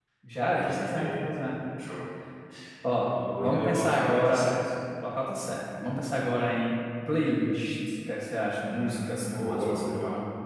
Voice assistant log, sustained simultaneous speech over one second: present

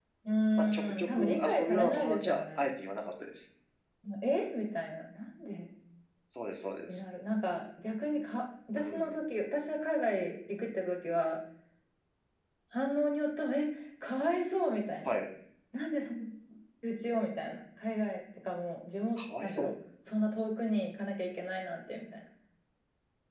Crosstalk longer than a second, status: present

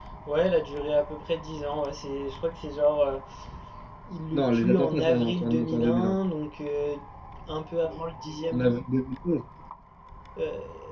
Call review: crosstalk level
present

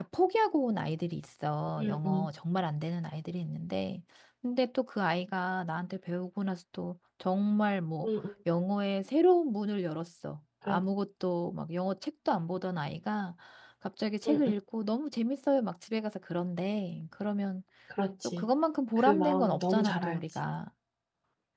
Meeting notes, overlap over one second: present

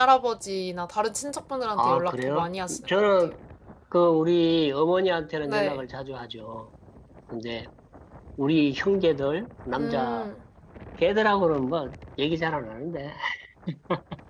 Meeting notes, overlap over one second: present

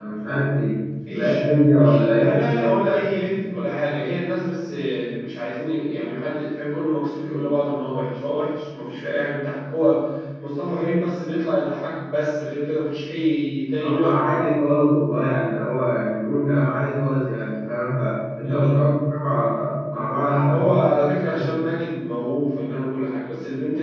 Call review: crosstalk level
present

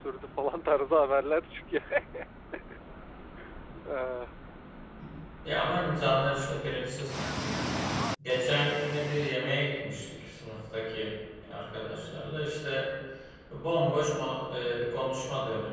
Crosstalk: none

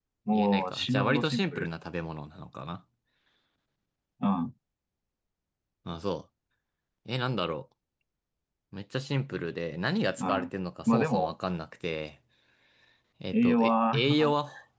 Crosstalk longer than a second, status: present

